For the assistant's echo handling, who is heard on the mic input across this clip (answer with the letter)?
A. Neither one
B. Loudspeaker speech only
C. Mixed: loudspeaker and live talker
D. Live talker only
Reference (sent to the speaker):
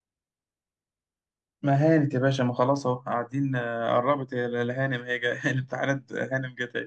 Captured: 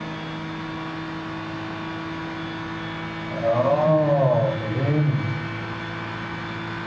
D